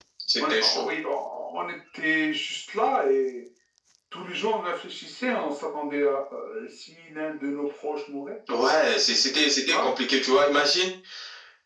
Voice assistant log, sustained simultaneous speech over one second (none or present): none